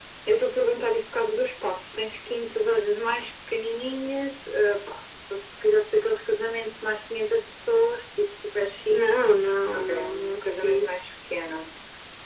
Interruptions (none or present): present